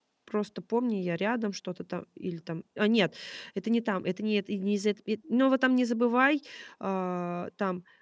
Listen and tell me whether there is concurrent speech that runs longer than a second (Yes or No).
No